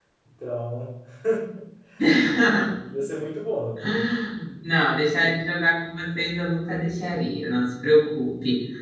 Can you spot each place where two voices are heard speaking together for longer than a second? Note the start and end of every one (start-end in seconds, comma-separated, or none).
none